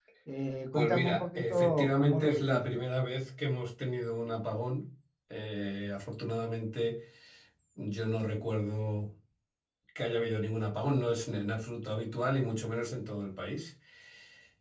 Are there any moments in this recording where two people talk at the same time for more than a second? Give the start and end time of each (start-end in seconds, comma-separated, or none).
0.7-2.6